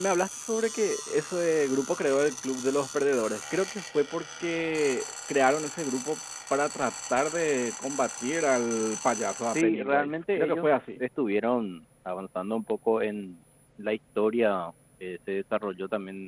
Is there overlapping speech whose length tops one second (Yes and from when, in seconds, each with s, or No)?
Yes, from 9.5 s